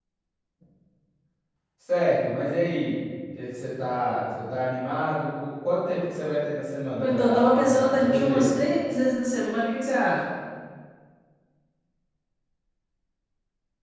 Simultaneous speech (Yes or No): Yes